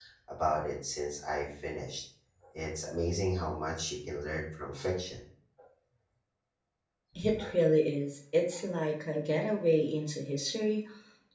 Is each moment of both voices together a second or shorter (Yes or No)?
Yes